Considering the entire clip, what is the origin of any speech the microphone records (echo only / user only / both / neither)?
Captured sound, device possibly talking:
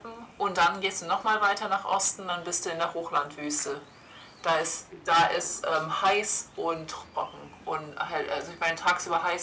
echo only